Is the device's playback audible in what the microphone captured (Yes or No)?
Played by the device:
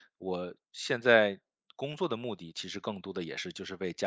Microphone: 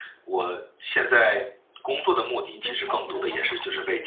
Yes